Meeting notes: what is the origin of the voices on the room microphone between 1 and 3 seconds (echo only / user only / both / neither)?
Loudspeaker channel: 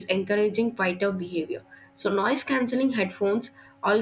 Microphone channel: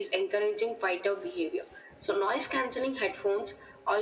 echo only